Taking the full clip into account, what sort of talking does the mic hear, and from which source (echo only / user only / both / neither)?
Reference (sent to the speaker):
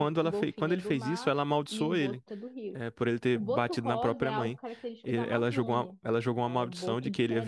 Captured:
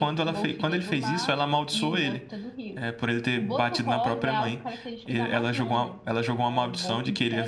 echo only